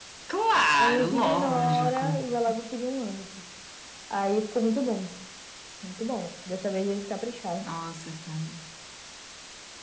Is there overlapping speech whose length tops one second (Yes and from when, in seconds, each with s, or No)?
Yes, from 0.8 s